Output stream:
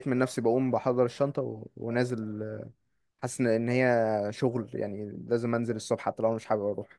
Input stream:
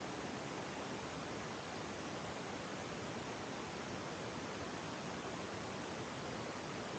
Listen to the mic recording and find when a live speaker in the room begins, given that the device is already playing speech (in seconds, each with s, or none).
none